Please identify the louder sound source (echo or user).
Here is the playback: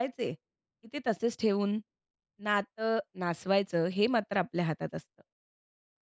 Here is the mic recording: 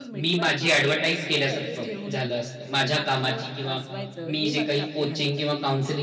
user